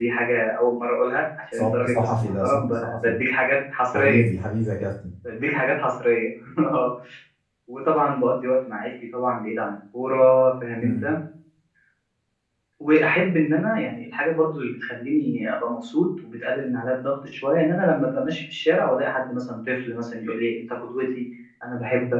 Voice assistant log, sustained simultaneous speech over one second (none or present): present